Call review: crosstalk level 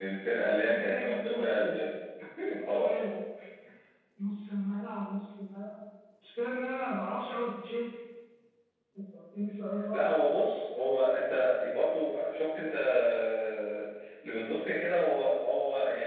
present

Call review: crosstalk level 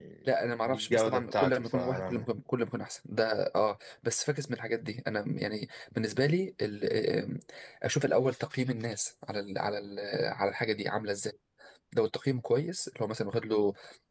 present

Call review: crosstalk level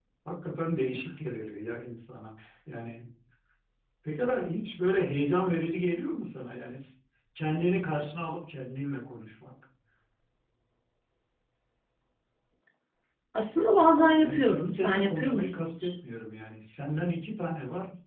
present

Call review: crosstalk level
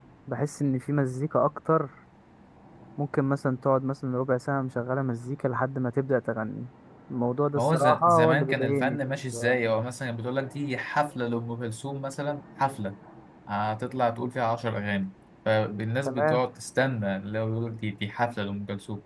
present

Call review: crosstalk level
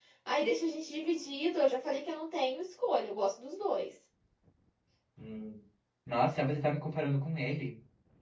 none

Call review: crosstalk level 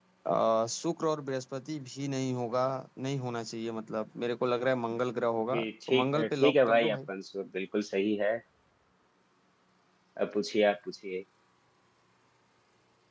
present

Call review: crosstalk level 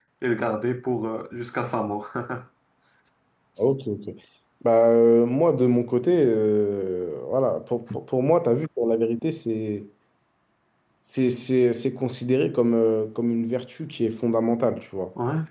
none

